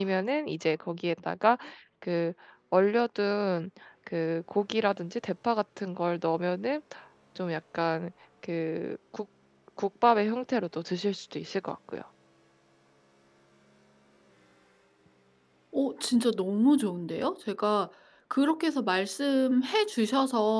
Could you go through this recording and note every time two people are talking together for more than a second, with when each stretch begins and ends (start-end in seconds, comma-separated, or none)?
none